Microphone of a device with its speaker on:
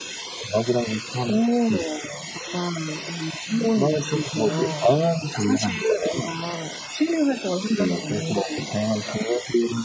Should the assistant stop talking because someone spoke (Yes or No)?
Yes